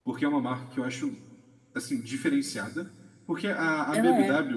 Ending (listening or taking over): listening